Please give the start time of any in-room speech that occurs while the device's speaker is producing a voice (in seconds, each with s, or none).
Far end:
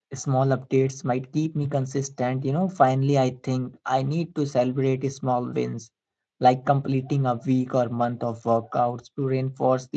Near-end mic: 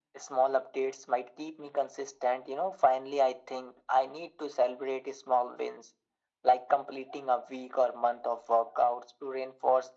none